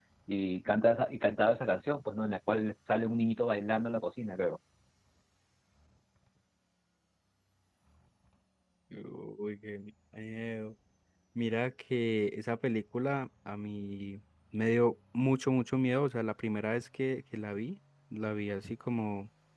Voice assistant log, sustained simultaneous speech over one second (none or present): none